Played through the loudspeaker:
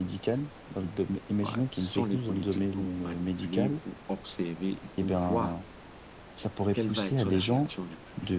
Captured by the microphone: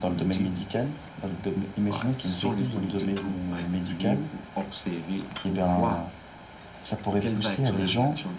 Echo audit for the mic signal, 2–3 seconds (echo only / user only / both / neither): echo only